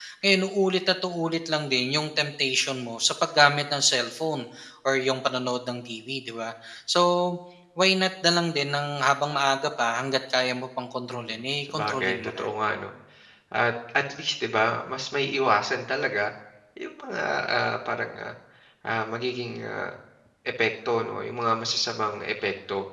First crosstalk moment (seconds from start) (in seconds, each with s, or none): 11.1 s